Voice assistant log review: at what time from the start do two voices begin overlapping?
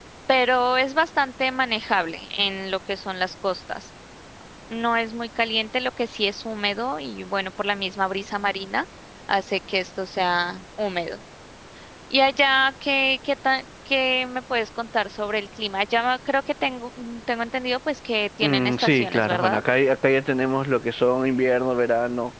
18 s

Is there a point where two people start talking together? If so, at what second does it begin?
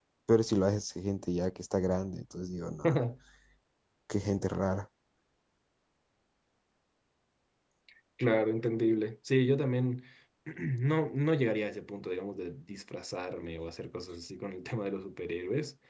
none

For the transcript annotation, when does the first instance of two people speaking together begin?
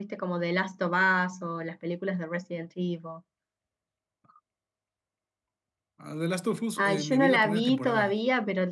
7 s

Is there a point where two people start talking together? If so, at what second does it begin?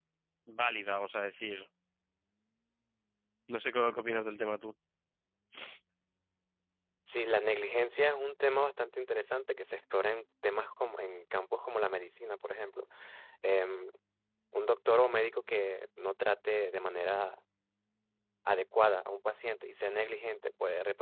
none

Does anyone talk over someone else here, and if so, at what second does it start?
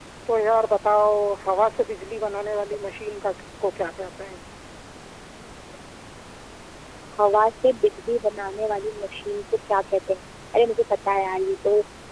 none

